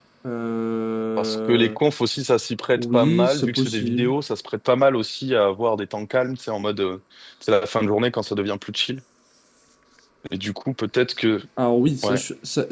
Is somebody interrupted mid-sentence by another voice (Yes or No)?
Yes